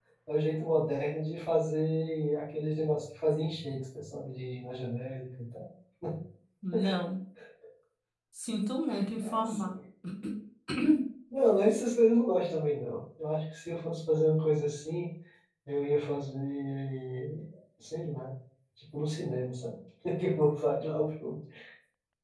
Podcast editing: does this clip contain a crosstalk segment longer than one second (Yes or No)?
No